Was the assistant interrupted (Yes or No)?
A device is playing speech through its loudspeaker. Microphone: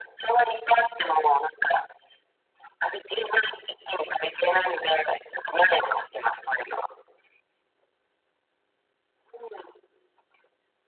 No